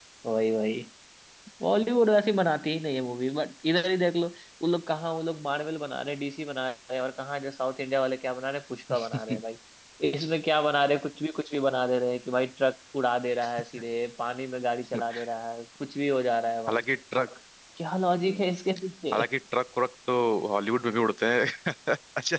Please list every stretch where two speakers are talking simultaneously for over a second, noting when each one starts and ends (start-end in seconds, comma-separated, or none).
none